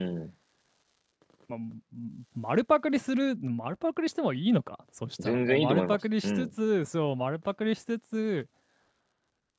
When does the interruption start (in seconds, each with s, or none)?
5.2 s